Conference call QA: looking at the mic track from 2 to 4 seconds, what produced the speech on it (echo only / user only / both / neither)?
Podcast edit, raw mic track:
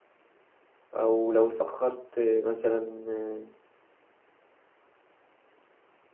user only